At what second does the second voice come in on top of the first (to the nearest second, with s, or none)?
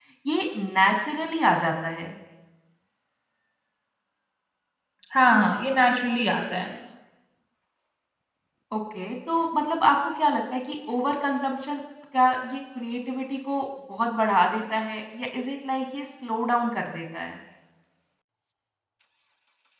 none